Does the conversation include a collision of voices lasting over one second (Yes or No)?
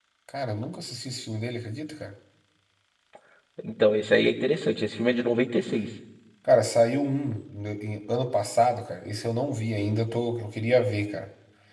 No